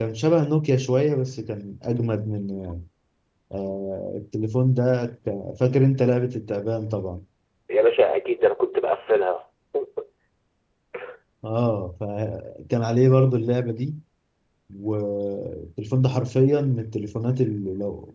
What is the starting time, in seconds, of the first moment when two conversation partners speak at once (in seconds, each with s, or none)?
none